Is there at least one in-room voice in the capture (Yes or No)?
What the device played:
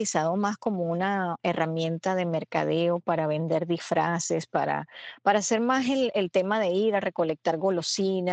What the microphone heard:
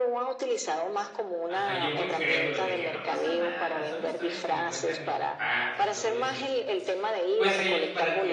Yes